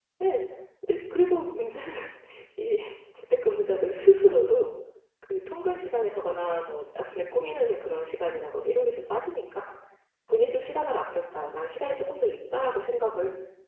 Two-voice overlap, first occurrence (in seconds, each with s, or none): none